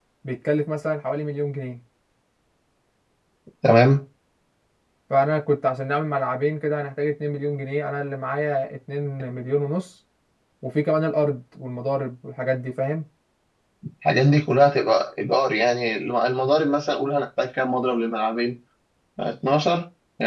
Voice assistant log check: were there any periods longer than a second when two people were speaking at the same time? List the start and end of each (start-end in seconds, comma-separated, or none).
none